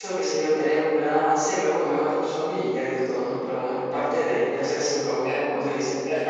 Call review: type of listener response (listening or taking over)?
taking over